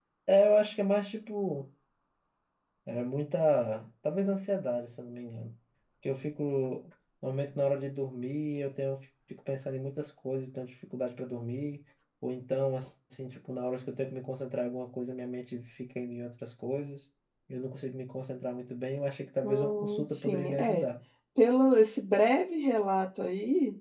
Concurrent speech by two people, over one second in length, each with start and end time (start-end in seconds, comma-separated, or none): 19.4-20.8